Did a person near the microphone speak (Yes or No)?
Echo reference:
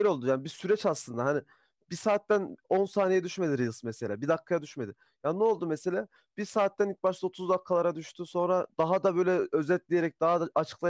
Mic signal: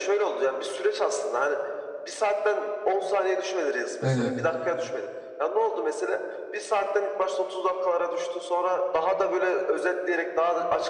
Yes